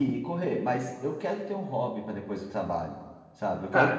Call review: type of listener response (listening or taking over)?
taking over